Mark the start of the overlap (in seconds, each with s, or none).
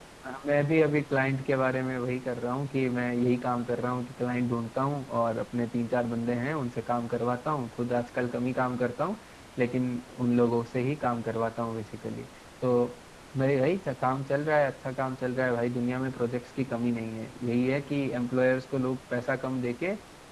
none